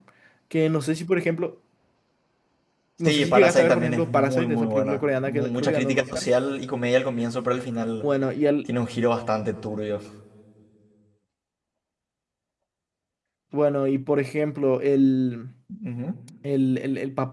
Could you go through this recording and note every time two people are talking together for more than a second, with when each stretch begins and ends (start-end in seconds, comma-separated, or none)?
3.0-6.2